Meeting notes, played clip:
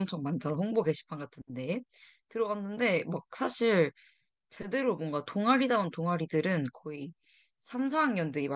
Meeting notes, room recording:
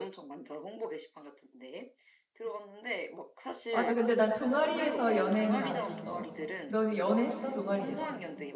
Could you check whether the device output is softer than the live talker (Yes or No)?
Yes